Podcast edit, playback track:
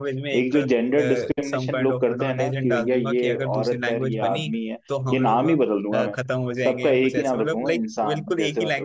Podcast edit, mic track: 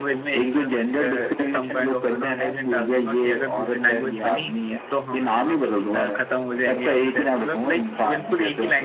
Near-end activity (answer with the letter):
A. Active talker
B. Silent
B